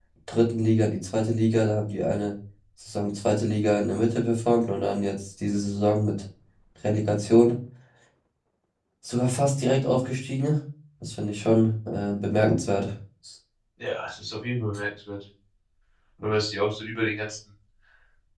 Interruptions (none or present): none